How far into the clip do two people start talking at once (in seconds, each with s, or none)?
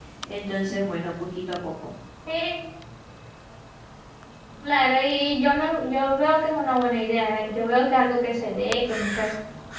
none